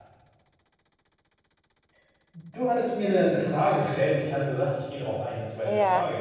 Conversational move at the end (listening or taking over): taking over